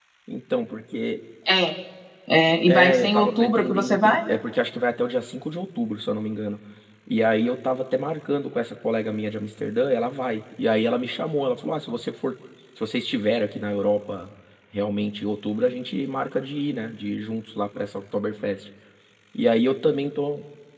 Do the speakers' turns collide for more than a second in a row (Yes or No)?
Yes